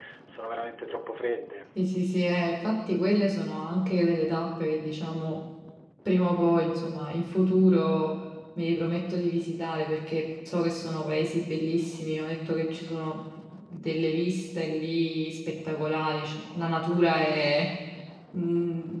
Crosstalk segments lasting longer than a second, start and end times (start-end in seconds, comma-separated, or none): none